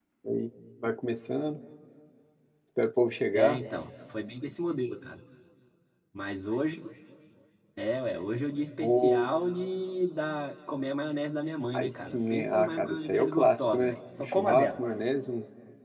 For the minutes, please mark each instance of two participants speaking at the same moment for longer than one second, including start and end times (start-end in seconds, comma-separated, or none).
11.7-14.8